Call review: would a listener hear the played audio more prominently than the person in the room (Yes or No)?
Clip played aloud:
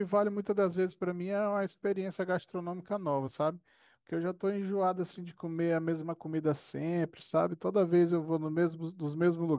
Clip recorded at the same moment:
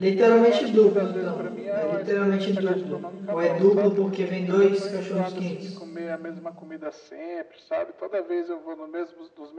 No